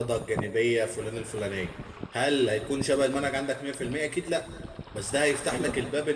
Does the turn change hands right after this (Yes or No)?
No